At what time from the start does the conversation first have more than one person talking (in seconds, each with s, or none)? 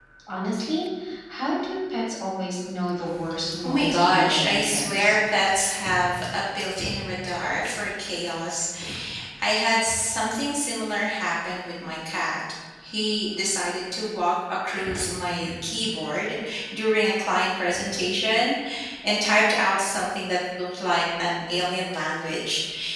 3.6 s